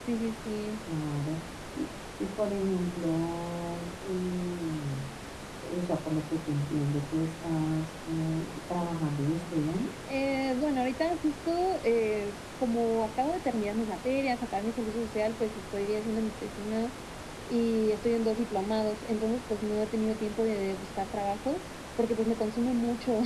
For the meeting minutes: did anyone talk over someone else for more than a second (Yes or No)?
No